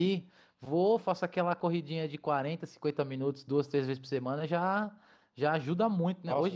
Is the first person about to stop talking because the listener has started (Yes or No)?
Yes